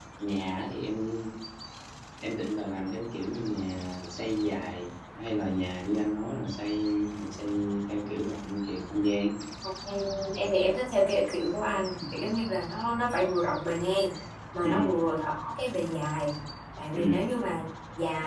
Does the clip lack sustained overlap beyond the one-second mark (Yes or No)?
Yes